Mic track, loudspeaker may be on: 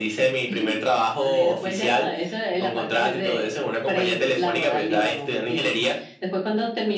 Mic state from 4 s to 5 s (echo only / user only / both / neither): echo only